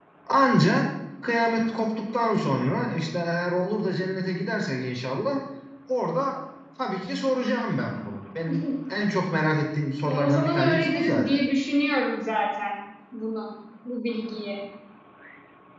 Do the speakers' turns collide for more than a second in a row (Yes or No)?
Yes